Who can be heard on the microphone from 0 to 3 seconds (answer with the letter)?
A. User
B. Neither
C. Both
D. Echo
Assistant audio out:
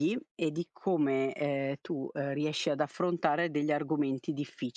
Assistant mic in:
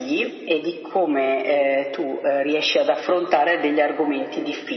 D